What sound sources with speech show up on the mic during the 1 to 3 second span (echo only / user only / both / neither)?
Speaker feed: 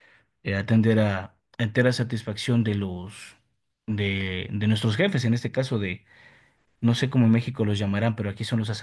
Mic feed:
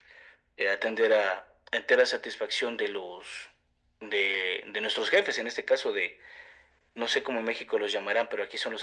echo only